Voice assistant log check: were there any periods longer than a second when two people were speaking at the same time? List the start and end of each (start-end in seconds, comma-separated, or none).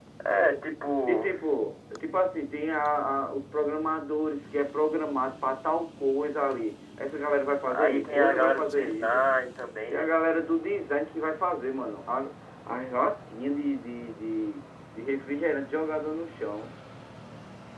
7.7-9.2